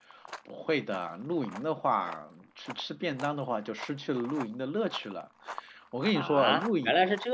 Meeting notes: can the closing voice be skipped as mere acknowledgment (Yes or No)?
No